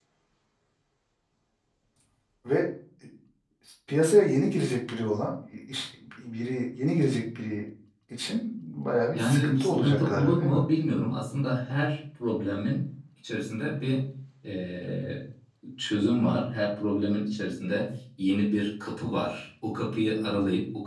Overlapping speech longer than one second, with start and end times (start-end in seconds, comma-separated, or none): 9.1-10.6